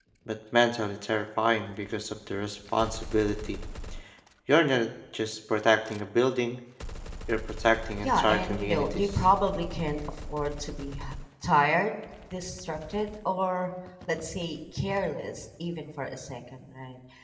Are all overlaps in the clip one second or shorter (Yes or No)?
No